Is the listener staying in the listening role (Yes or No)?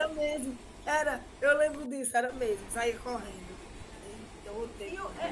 No